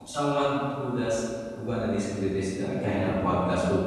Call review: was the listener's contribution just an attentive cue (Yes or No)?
Yes